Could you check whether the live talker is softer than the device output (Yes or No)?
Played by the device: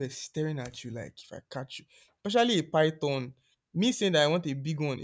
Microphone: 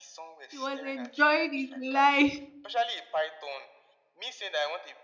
No